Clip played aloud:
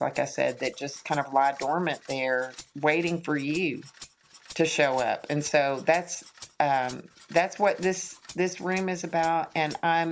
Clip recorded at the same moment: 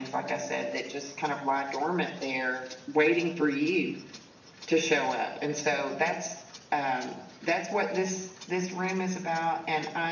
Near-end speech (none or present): none